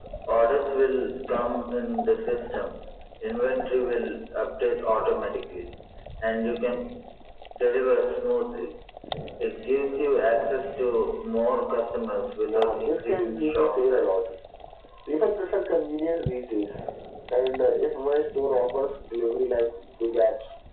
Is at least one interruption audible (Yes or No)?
Yes